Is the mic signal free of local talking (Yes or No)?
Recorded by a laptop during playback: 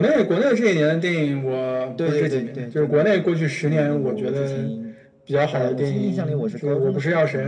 Yes